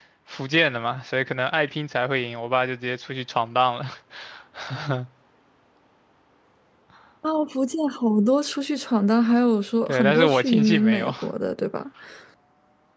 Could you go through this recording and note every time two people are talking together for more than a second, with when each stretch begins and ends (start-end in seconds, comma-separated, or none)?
9.9-11.1